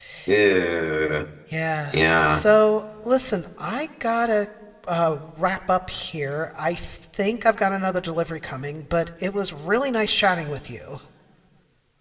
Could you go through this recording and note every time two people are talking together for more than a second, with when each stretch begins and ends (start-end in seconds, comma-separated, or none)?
none